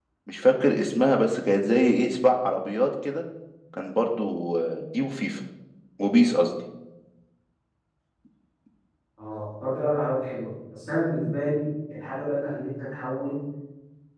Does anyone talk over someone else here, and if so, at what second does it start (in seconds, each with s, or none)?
none